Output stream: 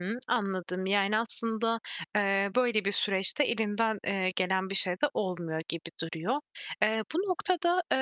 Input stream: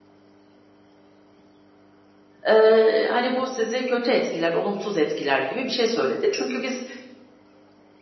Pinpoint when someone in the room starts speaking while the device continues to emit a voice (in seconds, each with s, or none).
2.5 s